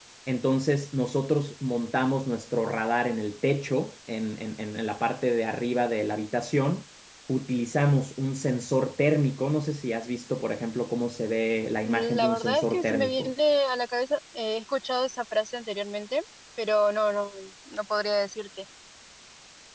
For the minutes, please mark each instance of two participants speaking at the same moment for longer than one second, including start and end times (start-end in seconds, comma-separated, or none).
11.8-13.3